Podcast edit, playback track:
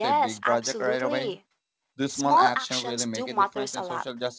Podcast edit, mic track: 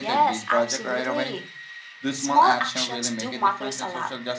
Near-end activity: none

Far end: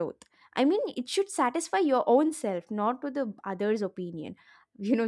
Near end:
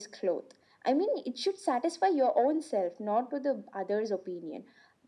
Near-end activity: none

